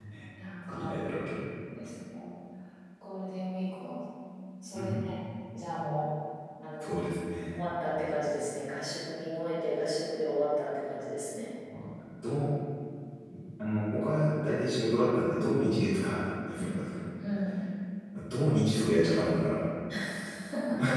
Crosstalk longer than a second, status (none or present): none